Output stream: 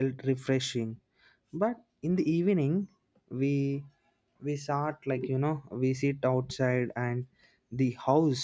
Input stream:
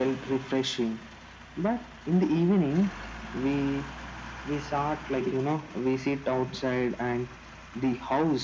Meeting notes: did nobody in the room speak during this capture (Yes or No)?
Yes